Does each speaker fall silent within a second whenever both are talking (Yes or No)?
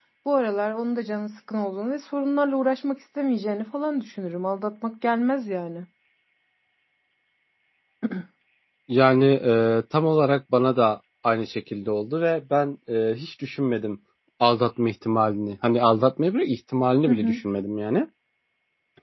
Yes